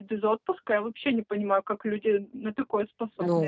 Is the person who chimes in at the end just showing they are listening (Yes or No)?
No